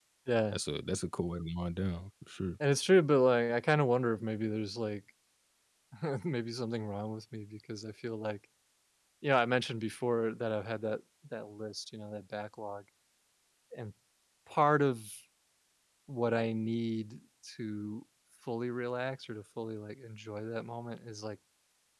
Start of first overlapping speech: none

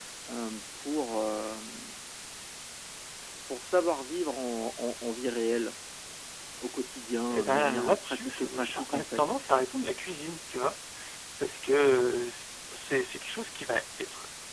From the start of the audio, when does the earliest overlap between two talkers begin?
7 s

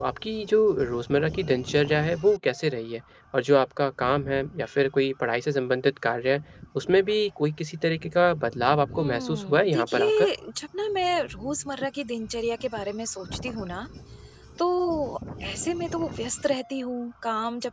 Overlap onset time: 9 s

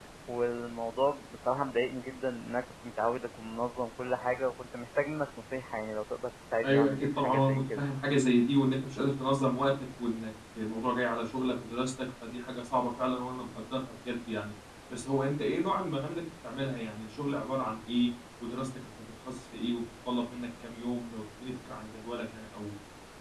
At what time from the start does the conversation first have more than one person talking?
7 s

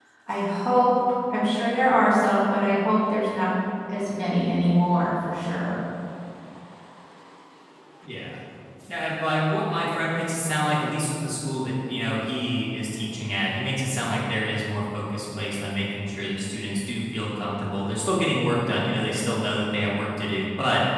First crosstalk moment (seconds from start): none

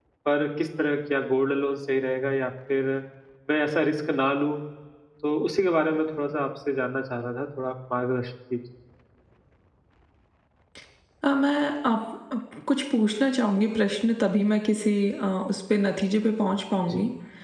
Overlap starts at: none

